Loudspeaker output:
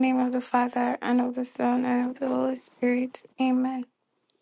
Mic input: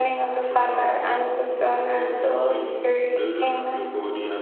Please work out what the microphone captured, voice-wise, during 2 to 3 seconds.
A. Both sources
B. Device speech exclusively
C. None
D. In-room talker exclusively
A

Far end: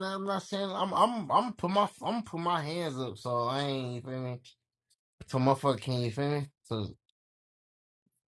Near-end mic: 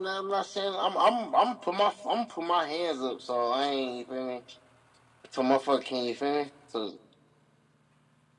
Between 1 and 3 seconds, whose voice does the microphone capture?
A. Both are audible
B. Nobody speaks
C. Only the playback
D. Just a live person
C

